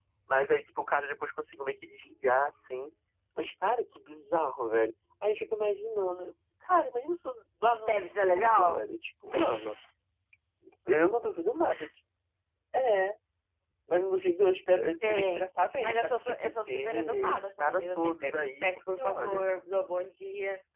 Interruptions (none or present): present